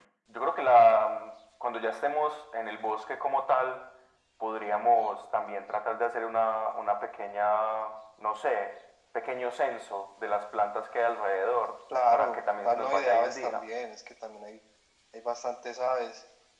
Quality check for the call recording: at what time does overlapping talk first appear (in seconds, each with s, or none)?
12.1 s